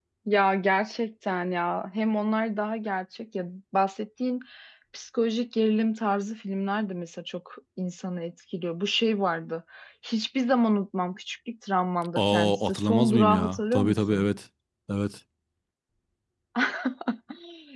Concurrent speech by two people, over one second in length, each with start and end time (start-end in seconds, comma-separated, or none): 12.2-14.3